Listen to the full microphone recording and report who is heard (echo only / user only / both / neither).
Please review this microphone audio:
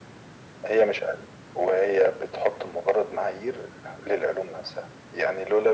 echo only